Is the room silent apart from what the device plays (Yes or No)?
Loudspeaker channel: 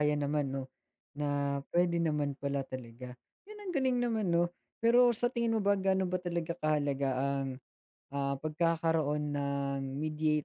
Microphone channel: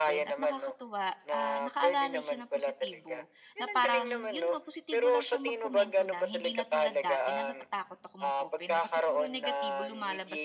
No